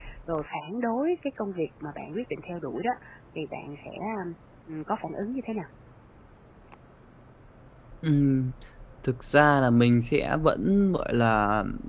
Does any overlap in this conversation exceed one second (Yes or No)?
No